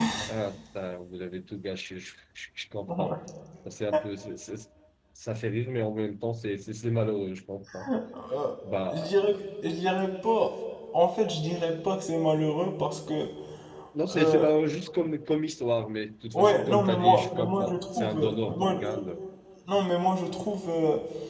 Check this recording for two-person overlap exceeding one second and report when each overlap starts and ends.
16.3-18.7

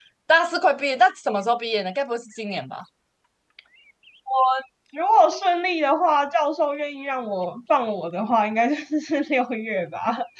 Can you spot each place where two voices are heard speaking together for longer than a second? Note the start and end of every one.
none

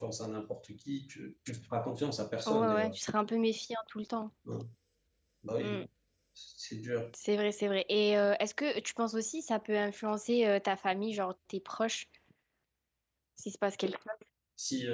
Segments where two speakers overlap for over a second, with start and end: none

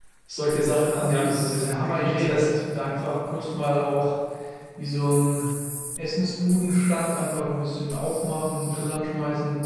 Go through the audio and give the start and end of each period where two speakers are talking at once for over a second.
1.0-2.6

